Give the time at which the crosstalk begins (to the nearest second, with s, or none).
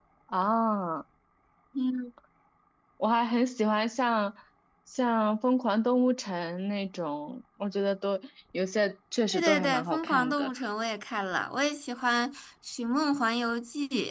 9 s